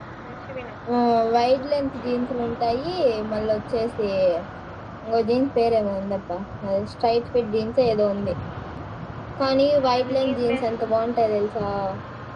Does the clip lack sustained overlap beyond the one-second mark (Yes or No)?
No